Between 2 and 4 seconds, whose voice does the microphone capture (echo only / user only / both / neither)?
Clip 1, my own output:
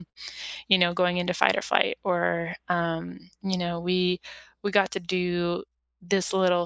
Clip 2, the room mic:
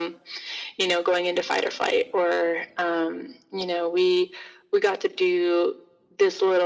echo only